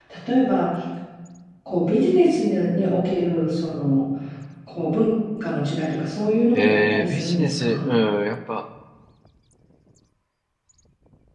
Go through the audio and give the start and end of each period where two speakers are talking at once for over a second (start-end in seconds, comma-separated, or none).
6.5-7.9